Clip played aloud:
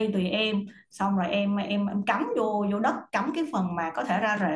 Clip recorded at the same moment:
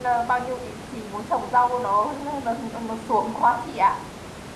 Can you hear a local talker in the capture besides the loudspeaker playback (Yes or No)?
Yes